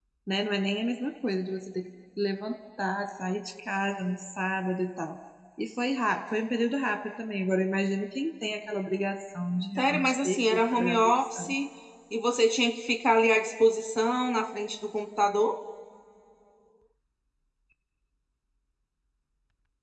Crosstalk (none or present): present